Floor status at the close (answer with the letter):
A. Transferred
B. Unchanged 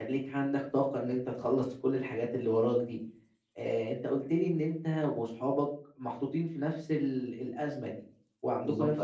B